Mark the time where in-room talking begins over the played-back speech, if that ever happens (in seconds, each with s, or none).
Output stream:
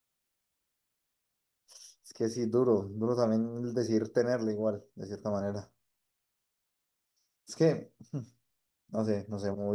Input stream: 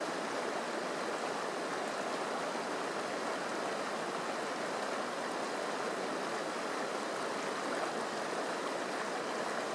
none